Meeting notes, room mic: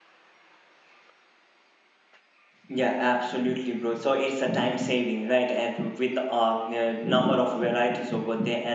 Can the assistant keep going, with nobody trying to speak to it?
No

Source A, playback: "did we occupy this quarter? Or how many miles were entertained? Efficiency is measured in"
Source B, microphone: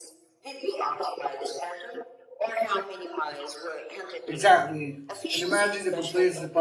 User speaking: Yes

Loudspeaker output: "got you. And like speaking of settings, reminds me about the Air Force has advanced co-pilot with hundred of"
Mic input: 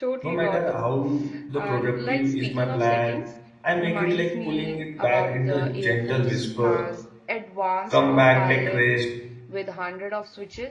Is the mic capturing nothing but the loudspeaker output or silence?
No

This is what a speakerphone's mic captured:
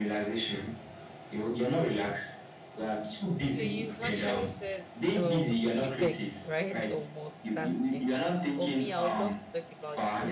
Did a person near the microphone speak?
Yes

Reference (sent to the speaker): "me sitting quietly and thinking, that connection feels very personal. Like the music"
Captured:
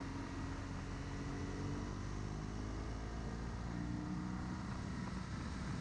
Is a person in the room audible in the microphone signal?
No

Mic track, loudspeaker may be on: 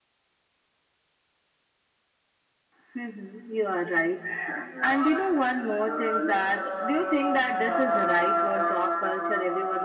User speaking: No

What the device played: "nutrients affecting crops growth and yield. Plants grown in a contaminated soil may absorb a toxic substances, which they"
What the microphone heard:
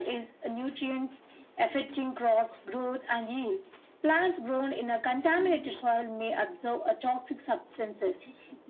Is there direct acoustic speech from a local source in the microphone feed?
No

